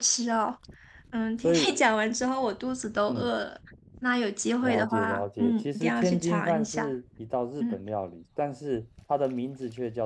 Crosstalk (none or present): present